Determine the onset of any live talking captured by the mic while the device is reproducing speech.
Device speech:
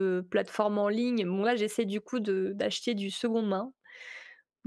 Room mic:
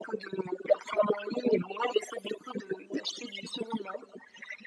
none

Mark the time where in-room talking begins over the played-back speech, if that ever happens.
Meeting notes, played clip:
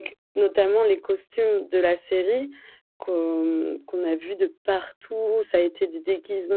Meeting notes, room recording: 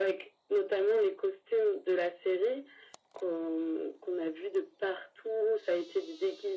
none

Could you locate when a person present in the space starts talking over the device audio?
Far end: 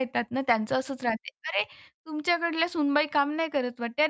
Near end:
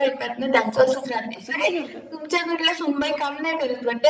1 s

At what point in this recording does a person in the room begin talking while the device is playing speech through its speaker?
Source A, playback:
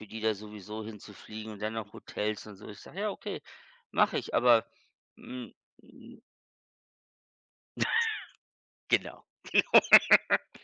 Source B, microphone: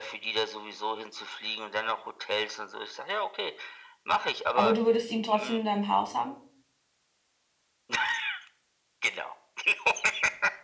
5 s

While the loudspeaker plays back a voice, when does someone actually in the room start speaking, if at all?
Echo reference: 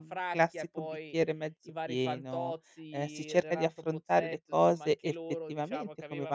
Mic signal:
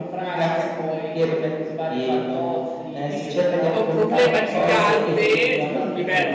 3 s

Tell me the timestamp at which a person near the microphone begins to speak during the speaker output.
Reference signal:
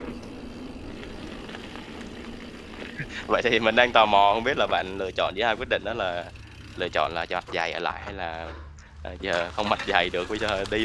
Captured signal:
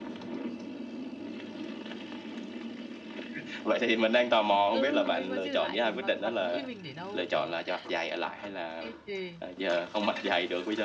5 s

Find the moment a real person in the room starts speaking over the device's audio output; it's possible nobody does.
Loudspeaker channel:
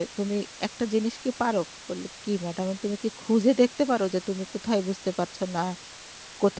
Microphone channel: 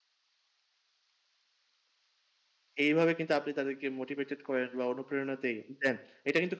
3 s

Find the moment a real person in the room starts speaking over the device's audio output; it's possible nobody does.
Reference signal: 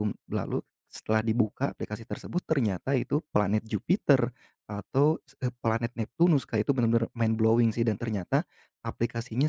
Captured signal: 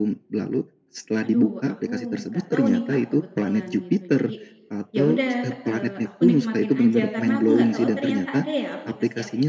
1 s

